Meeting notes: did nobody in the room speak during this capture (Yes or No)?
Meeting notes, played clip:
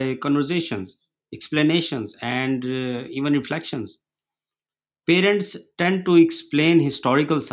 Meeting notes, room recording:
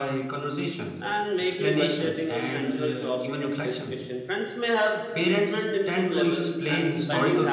No